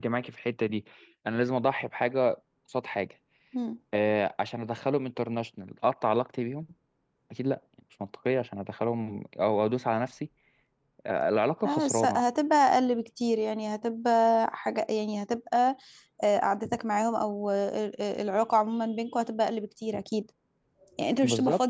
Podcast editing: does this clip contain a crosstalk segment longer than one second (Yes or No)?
No